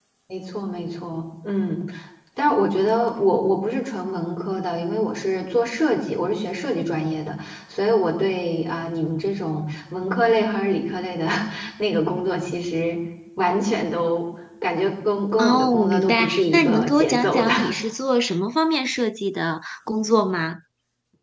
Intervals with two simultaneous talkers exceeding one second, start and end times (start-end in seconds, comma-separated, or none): 15.4-17.5